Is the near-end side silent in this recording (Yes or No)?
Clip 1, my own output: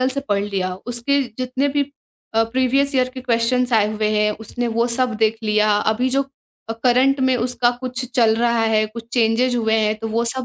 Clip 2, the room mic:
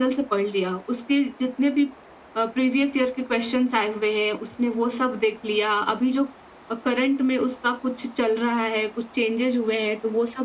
Yes